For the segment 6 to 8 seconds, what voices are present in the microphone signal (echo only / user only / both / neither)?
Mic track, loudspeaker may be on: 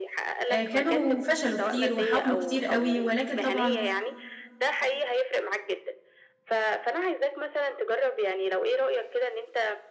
echo only